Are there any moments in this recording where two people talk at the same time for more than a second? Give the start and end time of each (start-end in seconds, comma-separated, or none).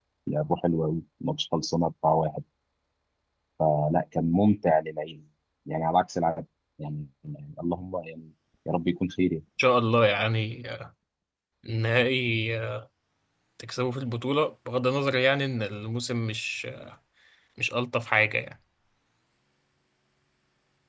none